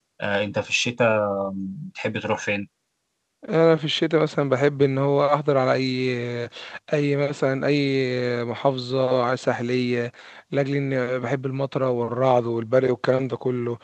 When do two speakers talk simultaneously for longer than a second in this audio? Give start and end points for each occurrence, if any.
none

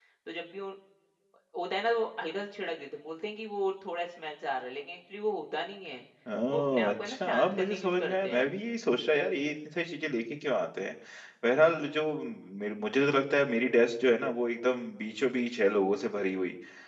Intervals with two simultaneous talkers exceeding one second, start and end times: 6.5-8.5

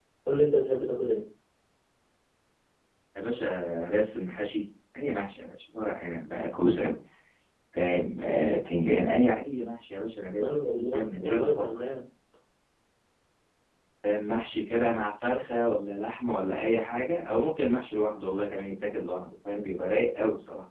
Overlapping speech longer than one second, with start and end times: 10.4-11.6

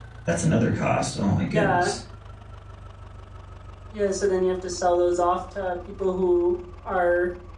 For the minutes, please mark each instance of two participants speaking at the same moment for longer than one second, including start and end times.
none

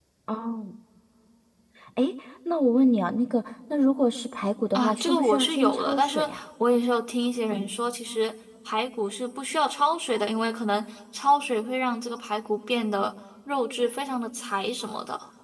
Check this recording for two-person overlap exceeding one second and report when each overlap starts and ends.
4.7-6.2

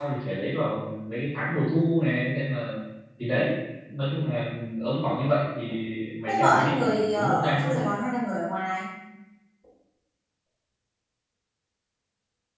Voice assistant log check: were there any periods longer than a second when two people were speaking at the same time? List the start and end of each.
6.3-7.9

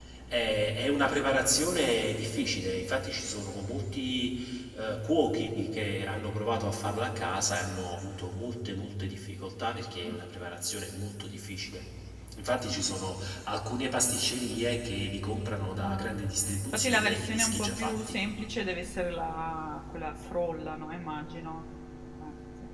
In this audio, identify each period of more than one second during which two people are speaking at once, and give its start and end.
16.7-18.2

